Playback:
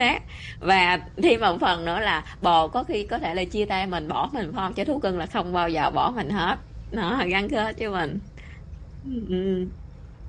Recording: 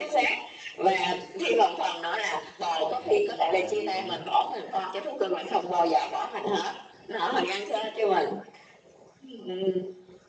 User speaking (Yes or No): Yes